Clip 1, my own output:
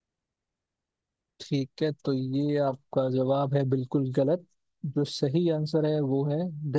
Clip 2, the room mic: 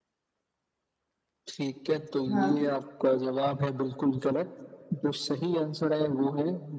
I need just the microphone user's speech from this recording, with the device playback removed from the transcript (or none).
हाँ